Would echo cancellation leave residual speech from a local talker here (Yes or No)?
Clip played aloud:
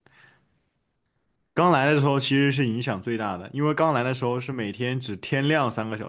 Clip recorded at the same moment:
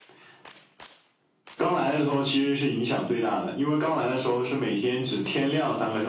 No